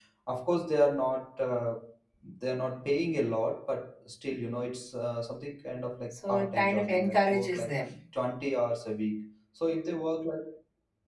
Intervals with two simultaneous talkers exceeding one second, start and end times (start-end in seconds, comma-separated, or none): 6.1-7.7